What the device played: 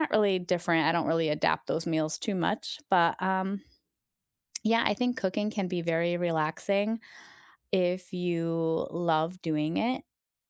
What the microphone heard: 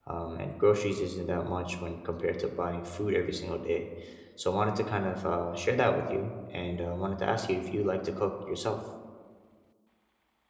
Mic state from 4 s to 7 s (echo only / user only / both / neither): user only